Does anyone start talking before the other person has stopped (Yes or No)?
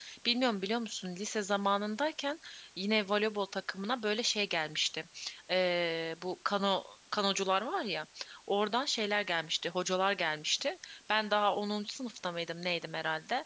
No